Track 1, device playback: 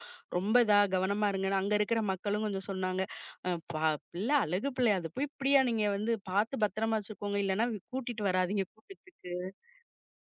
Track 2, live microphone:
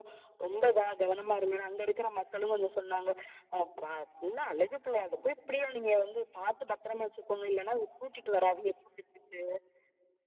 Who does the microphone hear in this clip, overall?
echo only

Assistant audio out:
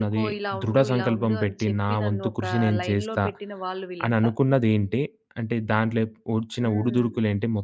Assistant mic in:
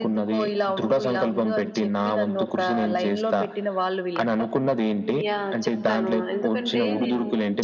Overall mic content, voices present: both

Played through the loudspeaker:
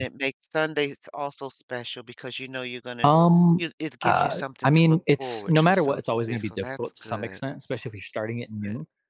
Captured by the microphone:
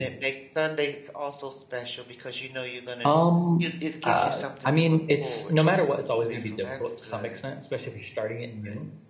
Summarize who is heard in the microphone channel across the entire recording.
echo only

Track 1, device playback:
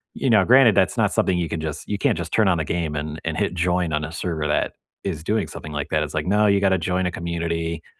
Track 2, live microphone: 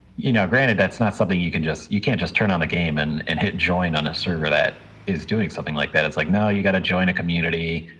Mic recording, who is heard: echo only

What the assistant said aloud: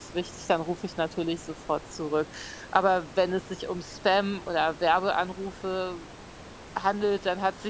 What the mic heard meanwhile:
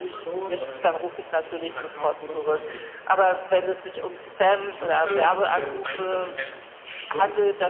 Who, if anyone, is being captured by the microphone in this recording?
both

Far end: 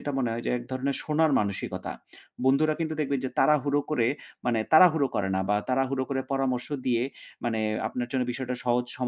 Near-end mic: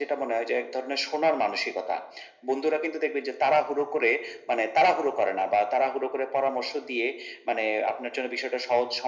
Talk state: echo only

